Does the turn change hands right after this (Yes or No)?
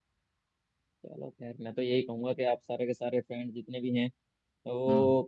No